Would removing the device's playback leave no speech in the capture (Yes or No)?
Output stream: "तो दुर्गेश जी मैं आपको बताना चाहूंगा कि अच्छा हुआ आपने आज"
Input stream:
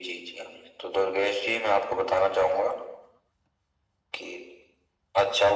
Yes